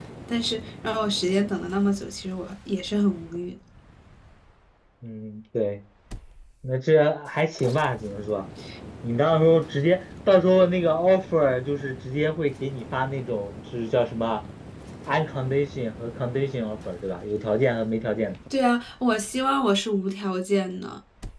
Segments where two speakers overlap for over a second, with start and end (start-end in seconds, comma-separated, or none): none